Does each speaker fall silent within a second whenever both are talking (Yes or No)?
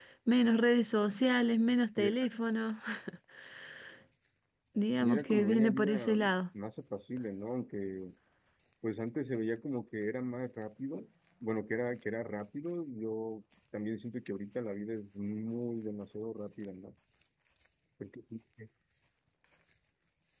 No